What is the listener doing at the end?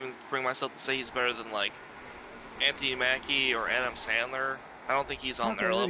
taking over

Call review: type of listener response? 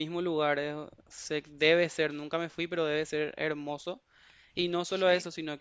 listening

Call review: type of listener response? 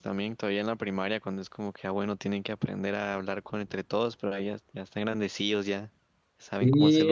taking over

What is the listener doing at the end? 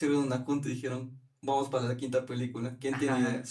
taking over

